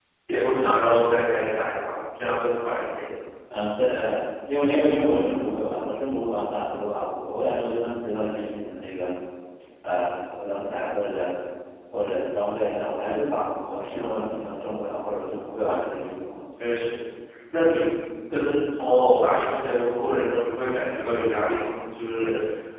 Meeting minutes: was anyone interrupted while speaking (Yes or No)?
No